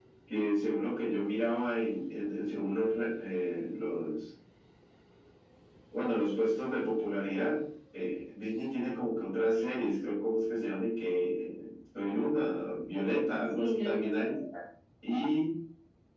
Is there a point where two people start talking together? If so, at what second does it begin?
12.9 s

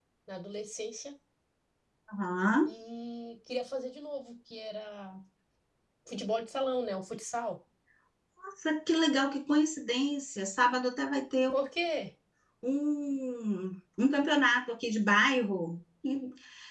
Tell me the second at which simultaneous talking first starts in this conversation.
none

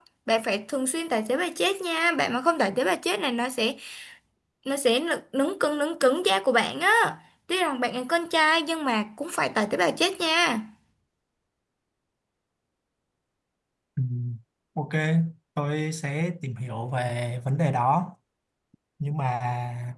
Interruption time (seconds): none

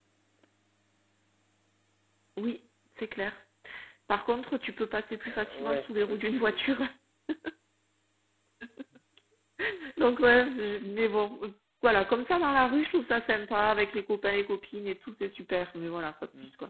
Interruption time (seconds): 5.3 s

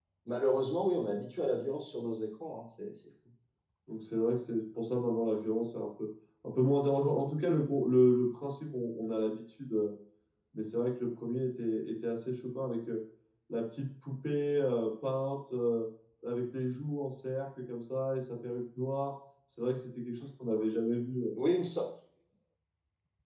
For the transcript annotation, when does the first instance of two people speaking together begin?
none

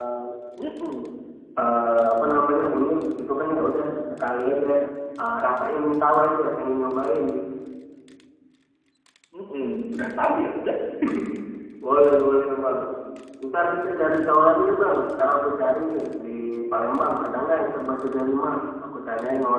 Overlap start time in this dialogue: none

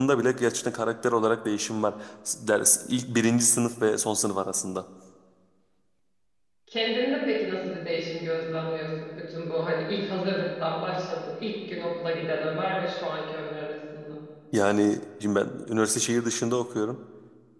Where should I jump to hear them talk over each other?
none

